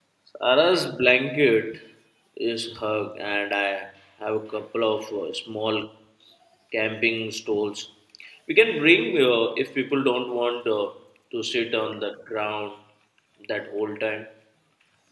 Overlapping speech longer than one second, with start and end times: none

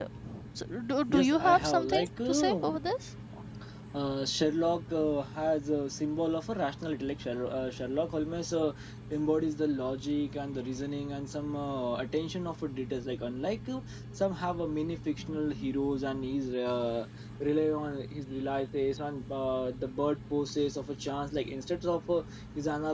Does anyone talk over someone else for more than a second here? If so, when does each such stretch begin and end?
1.1-2.8

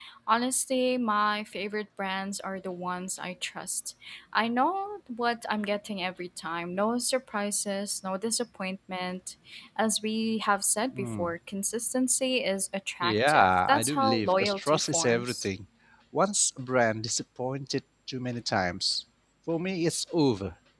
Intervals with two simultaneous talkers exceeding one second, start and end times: 13.0-15.5

